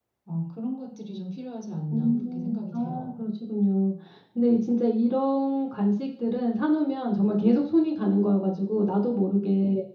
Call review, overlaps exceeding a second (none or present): present